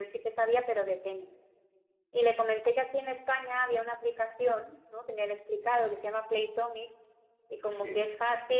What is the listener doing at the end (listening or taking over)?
listening